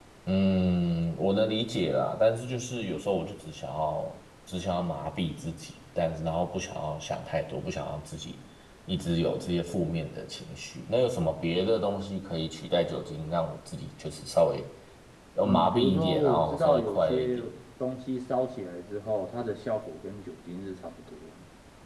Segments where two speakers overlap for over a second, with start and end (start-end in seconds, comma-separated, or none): 15.4-17.4